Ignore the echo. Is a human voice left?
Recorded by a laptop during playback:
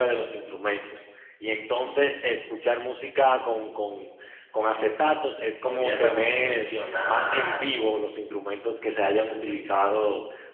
Yes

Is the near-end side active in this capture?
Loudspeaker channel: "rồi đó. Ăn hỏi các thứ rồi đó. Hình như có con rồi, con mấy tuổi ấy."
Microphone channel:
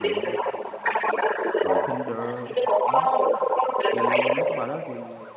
Yes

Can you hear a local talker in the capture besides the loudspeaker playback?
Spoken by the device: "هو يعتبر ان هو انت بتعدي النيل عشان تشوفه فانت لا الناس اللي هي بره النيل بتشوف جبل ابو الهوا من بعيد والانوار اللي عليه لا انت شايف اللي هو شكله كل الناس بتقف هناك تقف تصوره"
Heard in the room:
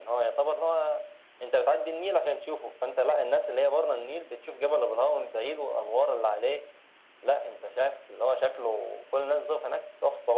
No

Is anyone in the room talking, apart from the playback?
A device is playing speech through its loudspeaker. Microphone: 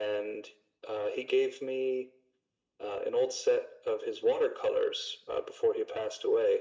No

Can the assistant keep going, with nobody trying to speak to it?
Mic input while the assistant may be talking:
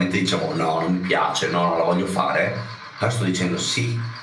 Yes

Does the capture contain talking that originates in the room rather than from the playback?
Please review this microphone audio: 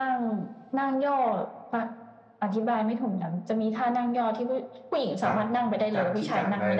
Yes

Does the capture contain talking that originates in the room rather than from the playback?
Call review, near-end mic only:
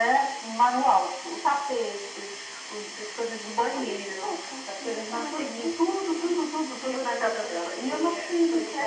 No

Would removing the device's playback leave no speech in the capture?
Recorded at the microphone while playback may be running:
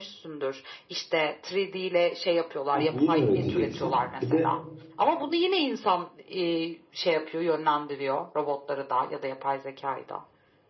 No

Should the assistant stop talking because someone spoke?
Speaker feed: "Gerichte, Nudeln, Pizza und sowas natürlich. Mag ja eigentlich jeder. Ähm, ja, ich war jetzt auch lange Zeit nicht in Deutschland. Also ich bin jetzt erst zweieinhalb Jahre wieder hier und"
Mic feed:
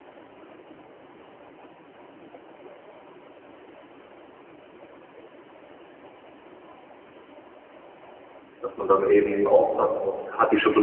Yes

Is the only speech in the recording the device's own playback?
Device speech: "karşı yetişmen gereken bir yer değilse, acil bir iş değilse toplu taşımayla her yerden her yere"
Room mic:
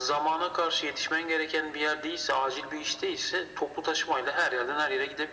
Yes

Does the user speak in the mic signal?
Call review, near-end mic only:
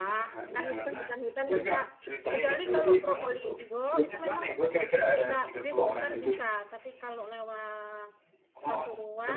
Yes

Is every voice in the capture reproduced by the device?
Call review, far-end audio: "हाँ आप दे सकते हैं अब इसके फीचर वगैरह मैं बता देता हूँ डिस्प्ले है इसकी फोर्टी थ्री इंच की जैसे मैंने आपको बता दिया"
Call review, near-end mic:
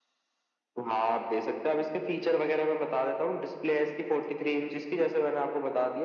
Yes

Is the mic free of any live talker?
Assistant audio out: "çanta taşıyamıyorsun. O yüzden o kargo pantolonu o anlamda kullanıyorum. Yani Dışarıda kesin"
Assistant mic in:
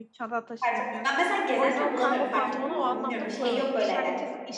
No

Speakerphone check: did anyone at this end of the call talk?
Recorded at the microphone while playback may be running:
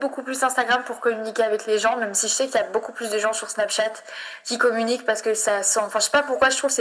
No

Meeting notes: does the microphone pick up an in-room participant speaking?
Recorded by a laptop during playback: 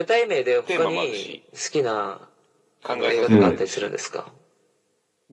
Yes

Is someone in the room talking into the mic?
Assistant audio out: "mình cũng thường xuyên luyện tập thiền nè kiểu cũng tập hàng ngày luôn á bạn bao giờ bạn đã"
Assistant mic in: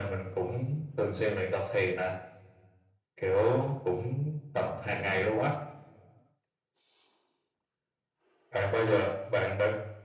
No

